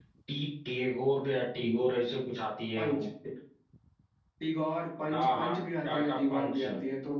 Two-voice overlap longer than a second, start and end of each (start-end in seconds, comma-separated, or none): 5.1-6.6